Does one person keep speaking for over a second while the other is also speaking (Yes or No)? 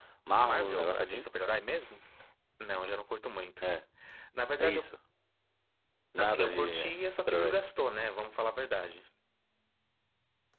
Yes